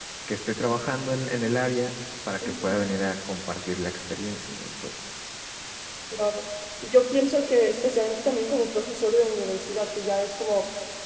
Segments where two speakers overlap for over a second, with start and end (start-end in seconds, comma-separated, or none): none